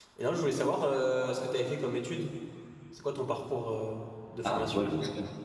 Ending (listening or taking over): taking over